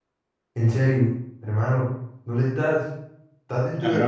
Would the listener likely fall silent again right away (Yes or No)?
No